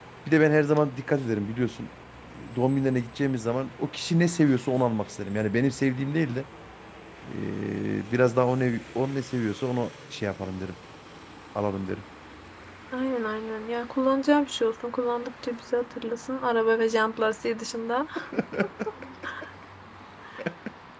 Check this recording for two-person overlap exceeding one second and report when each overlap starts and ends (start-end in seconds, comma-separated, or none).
none